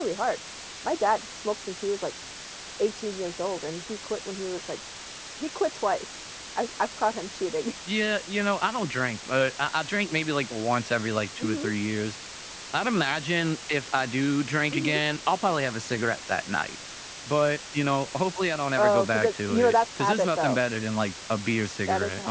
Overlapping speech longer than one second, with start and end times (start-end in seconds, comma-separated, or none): 18.8-20.6